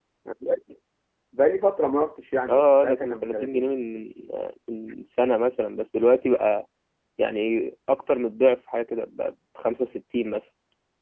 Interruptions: present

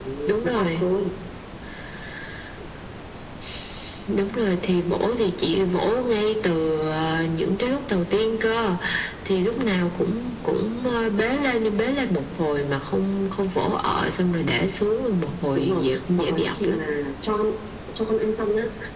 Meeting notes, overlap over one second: present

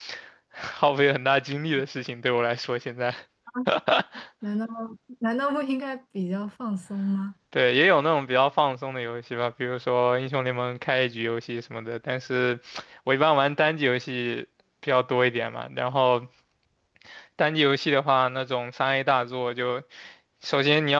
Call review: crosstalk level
none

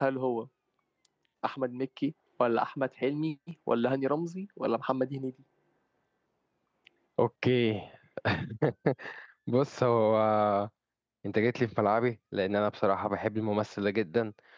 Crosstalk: none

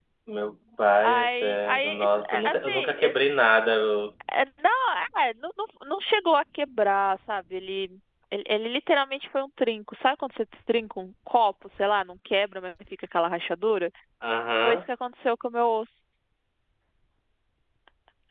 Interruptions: present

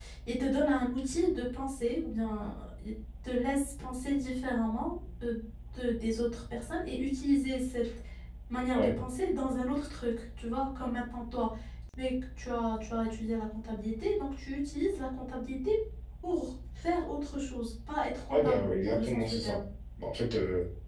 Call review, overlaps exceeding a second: present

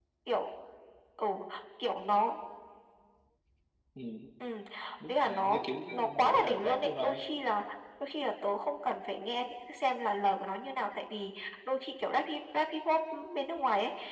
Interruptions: present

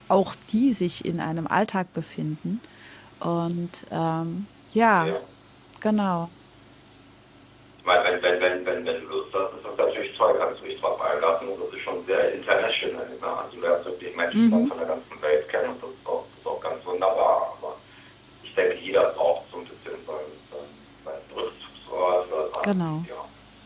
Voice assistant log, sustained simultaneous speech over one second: none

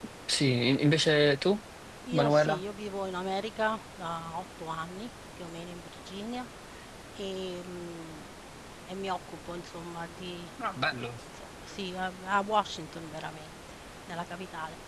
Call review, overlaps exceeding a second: none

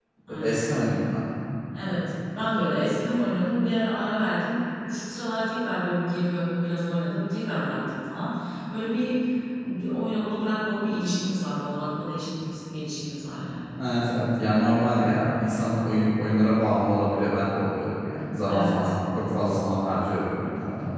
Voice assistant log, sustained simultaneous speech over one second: none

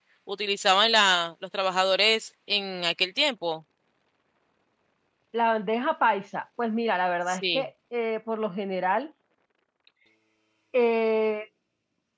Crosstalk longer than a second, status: none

